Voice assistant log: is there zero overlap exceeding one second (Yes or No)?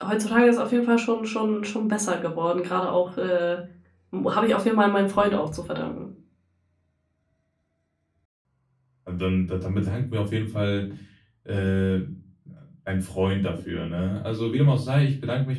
Yes